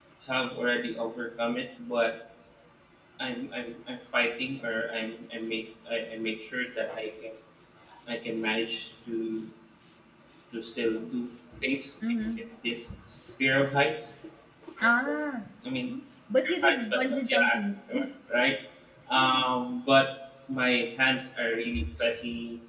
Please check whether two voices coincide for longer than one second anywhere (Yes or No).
Yes